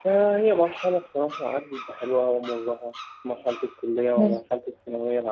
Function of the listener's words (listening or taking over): listening